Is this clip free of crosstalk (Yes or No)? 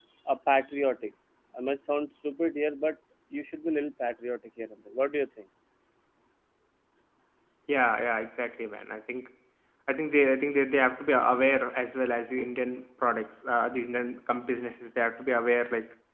Yes